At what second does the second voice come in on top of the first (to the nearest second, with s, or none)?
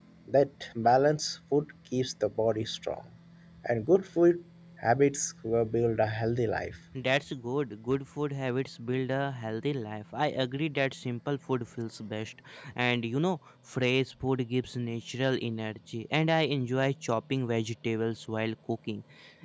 none